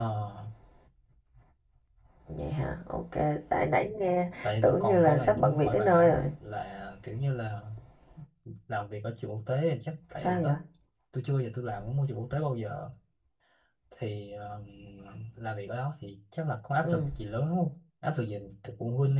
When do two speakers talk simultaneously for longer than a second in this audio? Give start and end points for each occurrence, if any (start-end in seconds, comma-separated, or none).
4.4-6.2